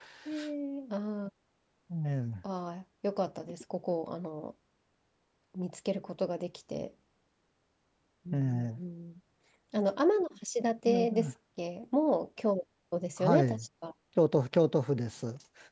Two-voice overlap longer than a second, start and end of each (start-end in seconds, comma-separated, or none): none